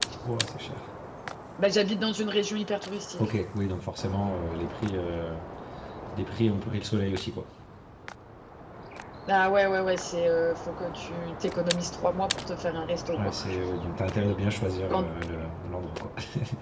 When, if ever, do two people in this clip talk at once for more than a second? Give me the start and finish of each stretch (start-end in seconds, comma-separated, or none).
none